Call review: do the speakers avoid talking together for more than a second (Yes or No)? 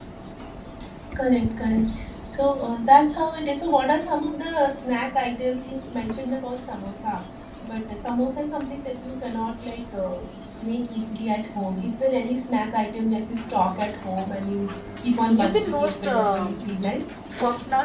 No